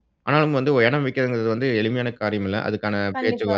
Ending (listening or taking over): listening